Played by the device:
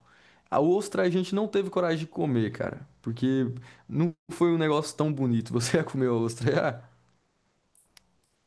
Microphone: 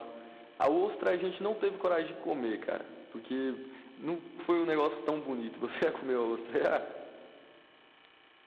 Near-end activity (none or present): none